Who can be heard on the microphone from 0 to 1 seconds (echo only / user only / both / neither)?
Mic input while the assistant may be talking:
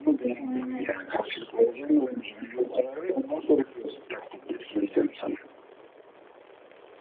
both